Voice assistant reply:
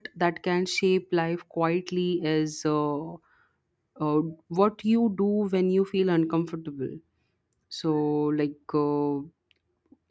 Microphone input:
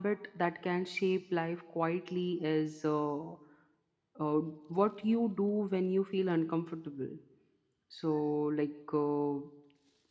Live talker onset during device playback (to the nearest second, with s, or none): none